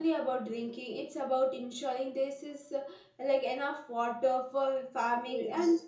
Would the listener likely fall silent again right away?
Yes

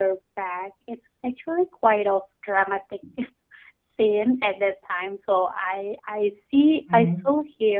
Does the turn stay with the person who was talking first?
Yes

